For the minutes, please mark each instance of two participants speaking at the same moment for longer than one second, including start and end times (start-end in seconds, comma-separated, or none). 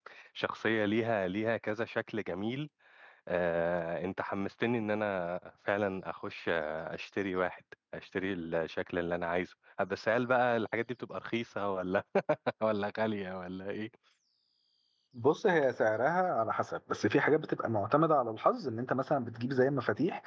none